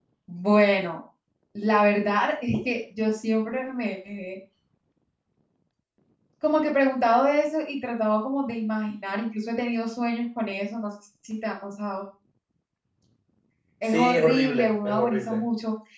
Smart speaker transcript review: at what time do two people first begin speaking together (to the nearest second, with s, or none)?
14 s